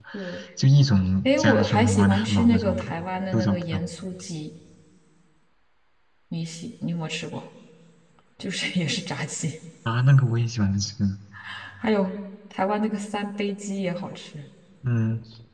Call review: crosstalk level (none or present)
present